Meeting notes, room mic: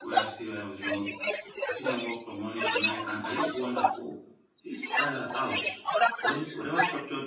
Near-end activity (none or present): present